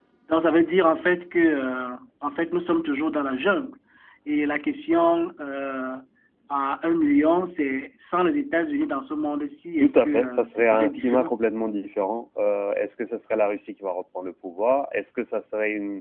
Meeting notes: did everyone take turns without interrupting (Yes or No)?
No